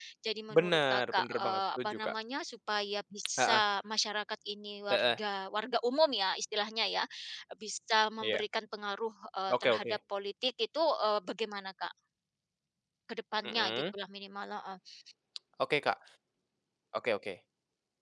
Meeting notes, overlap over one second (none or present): present